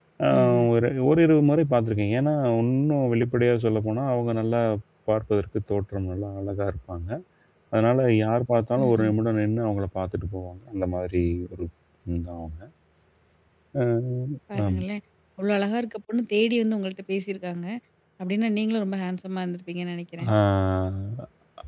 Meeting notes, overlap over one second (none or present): none